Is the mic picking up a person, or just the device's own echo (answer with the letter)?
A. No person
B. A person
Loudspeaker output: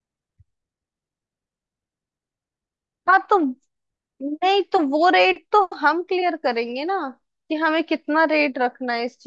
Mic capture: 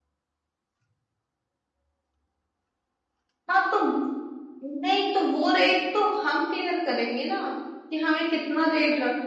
A